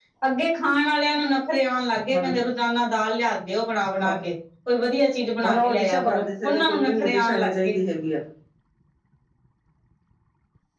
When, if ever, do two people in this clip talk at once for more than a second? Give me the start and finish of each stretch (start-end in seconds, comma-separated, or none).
5.4-7.7